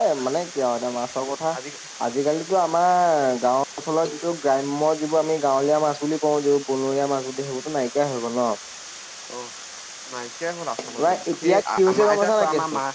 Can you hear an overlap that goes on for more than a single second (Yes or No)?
Yes